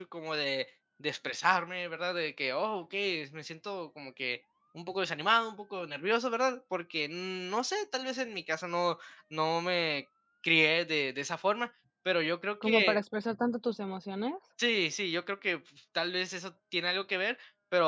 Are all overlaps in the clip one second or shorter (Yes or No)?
Yes